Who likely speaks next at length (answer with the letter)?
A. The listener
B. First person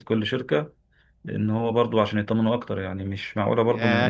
A